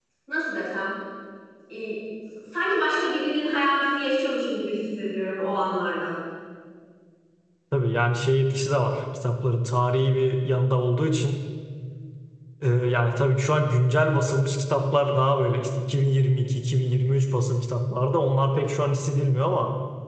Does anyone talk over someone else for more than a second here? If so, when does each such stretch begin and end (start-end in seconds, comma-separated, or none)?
none